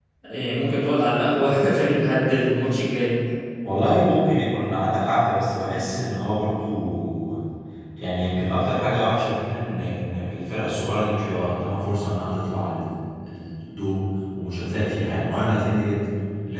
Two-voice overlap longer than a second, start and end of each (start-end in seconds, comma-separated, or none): none